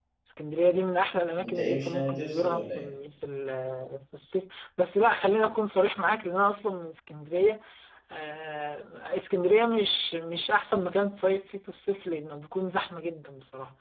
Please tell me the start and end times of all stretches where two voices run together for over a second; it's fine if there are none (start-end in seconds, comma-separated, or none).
1.4-2.8